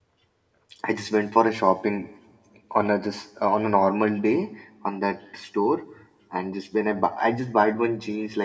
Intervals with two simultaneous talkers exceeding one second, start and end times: none

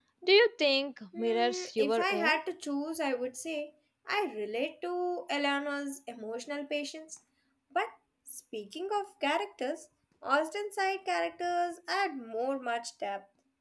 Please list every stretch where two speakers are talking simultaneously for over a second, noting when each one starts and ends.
1.2-2.4

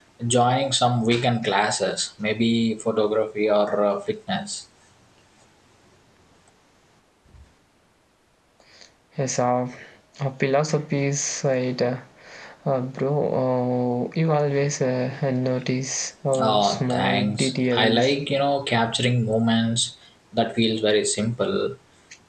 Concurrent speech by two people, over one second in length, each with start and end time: 16.4-18.1

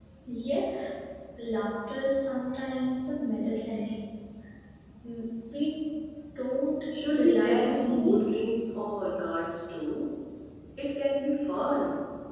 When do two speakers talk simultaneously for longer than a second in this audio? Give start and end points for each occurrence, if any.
7.0-8.3

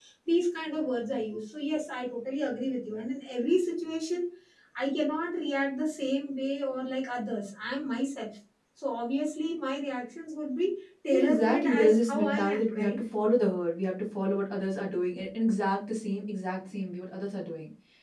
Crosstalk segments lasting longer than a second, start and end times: 11.1-12.9

